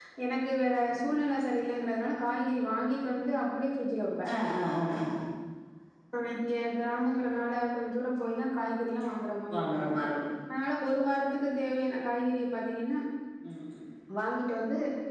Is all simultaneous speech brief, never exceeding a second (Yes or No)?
Yes